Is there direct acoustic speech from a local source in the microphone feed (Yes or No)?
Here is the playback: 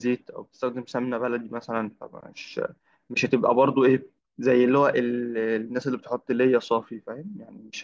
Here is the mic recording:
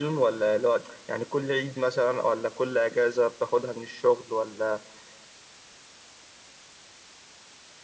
Yes